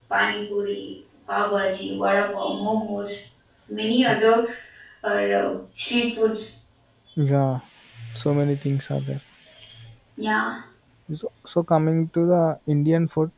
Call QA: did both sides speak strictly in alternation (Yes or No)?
Yes